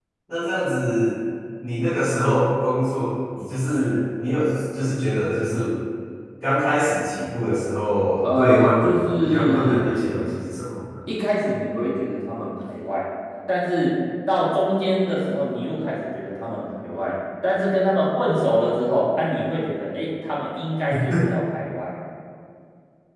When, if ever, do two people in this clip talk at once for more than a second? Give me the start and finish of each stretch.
8.3-10.1

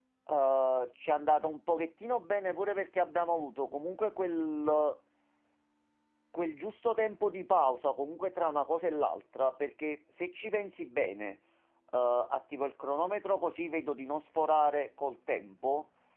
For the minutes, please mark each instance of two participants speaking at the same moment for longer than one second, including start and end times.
none

